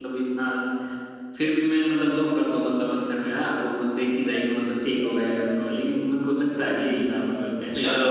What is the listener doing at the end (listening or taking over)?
taking over